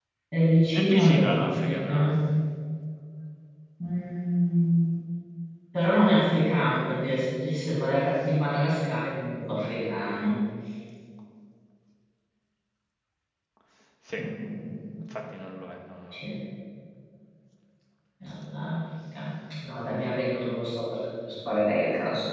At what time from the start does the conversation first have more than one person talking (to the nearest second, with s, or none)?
1 s